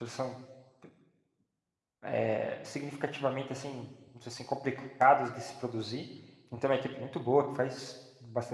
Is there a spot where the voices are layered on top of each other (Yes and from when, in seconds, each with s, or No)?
No